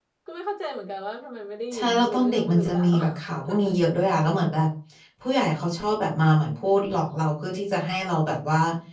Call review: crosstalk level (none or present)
present